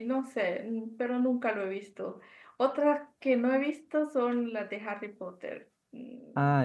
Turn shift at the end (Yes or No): Yes